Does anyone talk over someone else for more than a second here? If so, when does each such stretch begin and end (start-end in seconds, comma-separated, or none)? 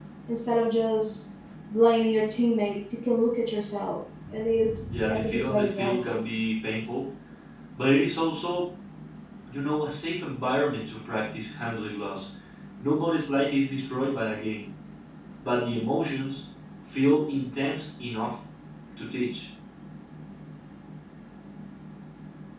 4.9-6.2